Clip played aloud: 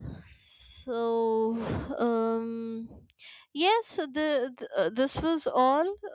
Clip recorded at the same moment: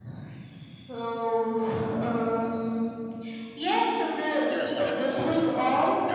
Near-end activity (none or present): present